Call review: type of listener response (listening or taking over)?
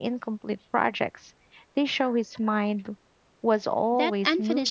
taking over